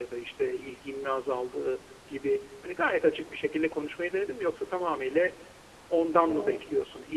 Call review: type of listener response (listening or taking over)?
listening